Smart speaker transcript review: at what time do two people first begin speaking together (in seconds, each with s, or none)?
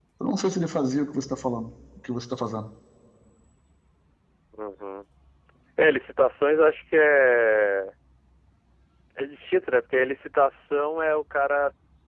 none